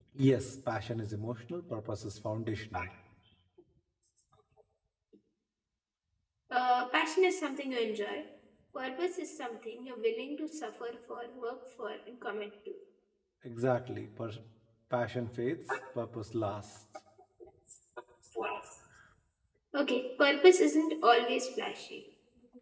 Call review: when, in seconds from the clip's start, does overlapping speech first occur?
none

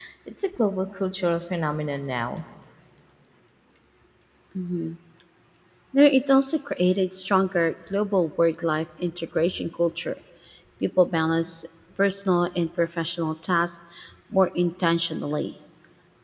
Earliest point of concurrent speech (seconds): none

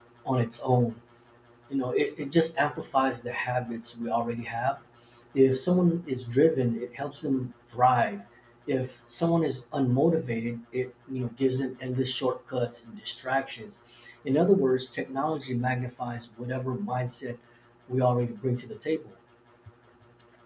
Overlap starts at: none

